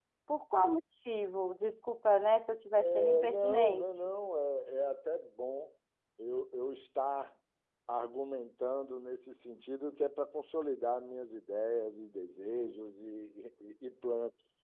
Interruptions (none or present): present